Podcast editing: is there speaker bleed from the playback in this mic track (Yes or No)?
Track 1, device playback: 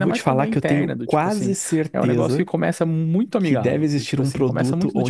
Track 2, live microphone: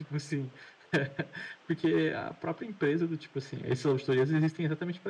No